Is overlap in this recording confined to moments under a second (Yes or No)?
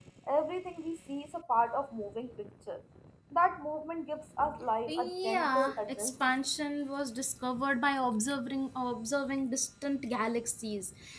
No